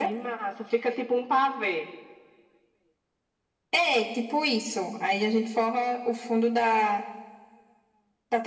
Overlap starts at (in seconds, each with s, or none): none